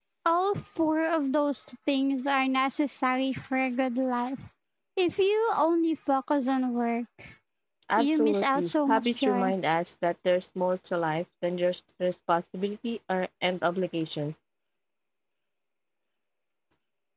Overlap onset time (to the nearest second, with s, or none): 8 s